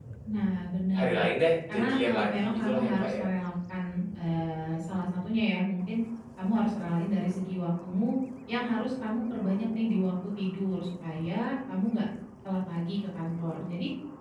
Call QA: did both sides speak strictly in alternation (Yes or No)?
No